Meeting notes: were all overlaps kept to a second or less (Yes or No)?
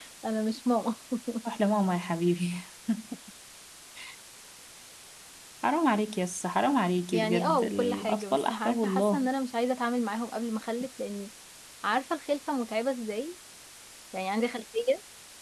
No